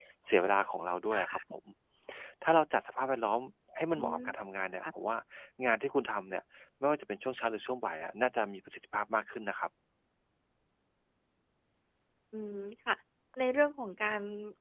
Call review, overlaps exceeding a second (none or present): none